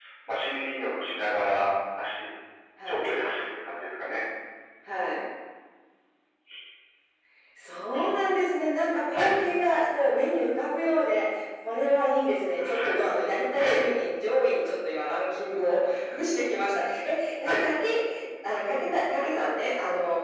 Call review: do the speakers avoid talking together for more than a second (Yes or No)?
Yes